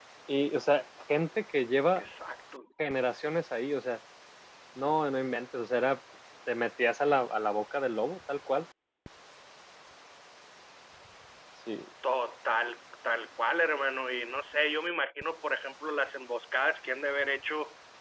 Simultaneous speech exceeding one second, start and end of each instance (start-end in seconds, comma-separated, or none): none